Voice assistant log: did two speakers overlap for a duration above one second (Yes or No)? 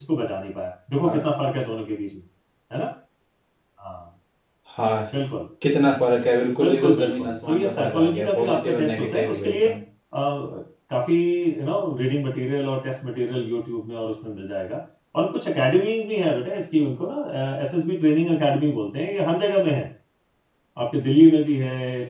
Yes